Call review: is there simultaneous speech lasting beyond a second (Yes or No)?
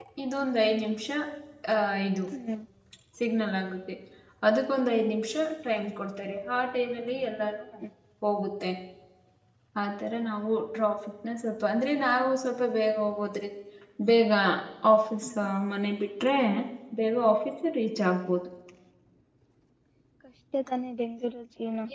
No